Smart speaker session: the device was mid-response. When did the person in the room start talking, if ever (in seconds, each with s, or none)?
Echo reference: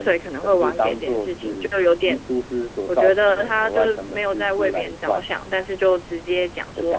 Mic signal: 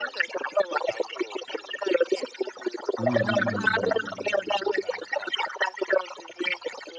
3.0 s